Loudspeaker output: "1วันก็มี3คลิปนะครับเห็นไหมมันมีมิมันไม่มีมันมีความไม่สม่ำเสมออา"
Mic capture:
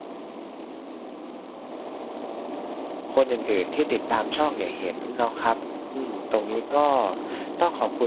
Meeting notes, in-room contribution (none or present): present